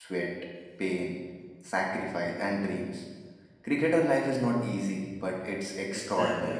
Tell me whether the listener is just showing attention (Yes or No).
No